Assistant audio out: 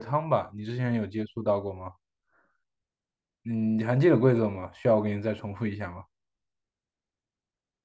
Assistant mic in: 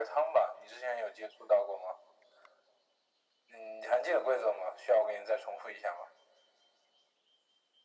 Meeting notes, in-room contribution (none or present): none